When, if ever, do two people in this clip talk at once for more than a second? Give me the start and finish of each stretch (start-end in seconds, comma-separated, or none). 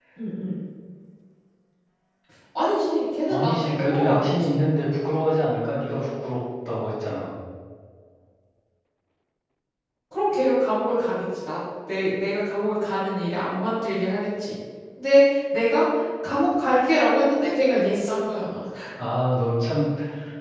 3.3-4.6